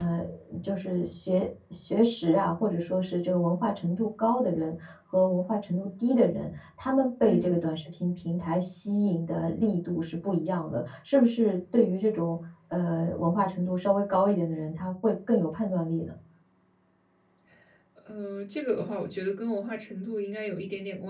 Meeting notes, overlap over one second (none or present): none